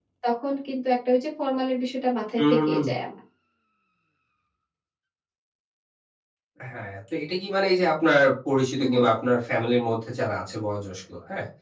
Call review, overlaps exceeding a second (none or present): none